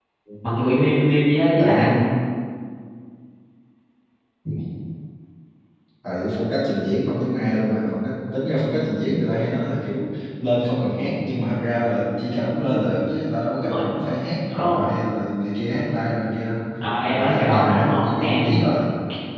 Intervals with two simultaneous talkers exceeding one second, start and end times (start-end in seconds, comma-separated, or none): 17.1-18.6